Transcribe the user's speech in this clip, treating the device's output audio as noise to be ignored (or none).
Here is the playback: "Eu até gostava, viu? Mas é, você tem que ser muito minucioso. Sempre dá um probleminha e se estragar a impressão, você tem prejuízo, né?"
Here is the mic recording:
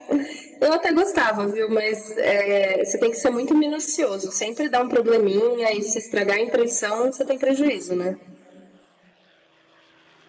none